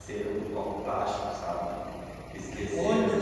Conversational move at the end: listening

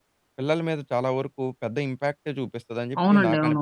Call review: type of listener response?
taking over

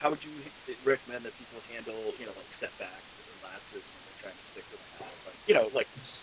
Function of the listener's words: listening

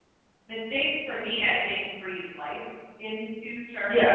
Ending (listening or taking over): taking over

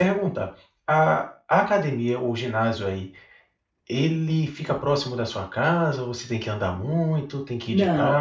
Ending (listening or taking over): taking over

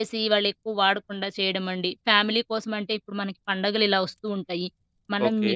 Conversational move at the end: listening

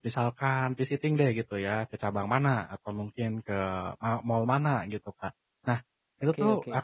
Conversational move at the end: listening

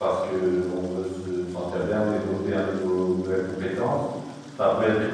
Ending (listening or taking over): listening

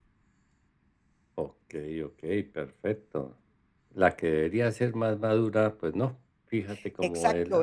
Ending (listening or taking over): taking over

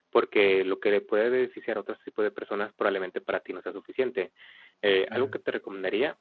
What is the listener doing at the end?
listening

